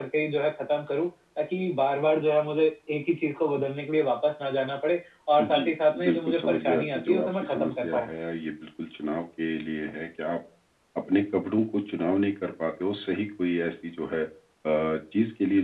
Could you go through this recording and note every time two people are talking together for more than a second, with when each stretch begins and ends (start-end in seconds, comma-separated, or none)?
5.4-8.1